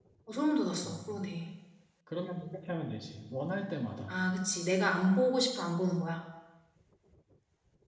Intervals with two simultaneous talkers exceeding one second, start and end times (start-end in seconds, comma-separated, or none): none